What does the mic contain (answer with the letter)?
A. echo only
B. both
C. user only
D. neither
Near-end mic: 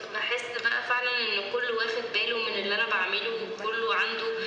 B